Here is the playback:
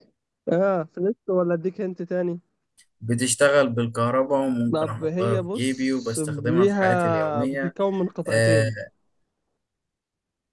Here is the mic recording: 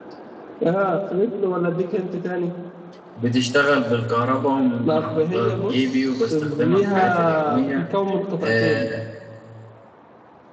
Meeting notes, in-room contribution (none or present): none